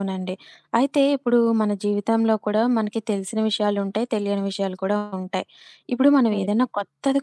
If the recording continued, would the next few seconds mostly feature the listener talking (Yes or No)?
No